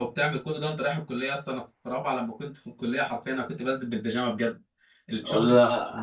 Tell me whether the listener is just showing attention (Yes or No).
Yes